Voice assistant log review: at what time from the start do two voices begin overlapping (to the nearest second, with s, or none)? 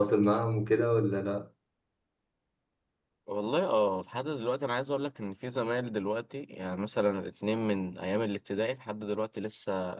none